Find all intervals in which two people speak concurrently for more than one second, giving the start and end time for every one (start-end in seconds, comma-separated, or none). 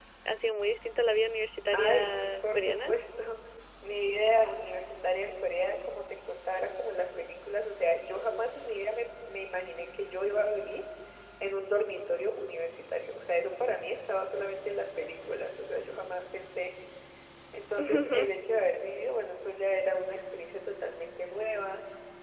1.7-2.9